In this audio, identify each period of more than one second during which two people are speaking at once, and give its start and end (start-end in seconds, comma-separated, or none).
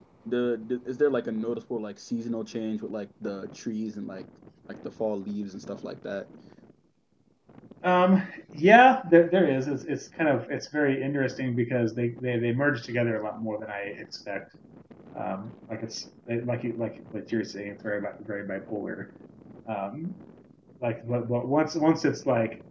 none